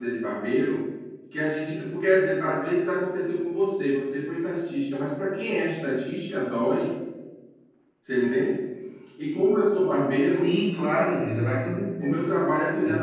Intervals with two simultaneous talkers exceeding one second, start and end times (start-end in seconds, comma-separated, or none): none